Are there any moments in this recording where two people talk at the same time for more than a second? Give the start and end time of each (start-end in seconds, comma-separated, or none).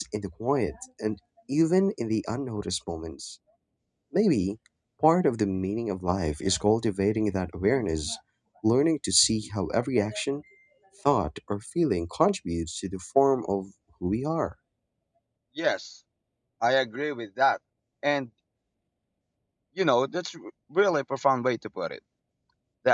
none